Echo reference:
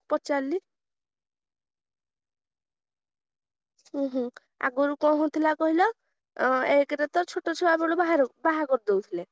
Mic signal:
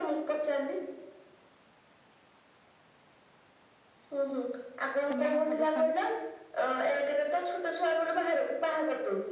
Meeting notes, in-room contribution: present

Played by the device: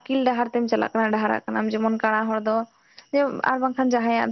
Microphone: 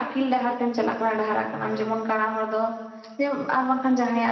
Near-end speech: present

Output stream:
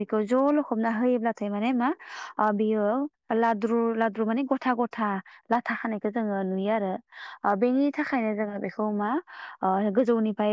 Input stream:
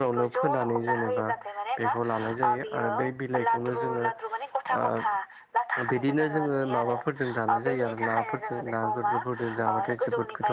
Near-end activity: present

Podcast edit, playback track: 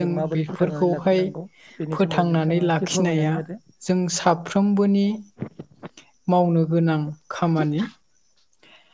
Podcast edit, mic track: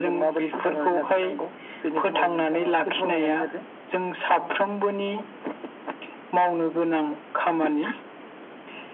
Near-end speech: none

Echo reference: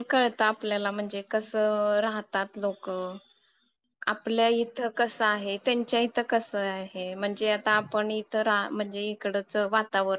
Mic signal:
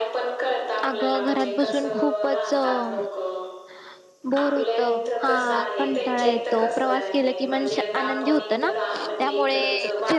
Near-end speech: present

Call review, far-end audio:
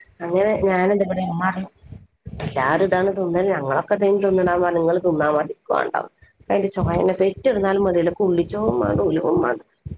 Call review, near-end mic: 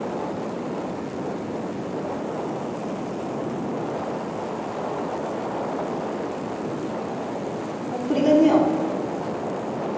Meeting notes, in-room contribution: present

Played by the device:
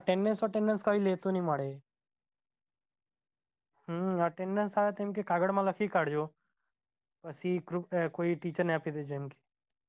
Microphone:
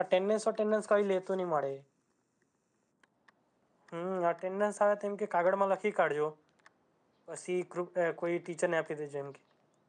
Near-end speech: none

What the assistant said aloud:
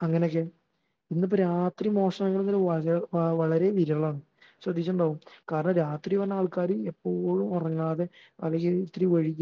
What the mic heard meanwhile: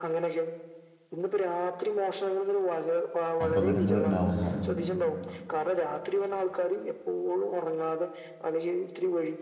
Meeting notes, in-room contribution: present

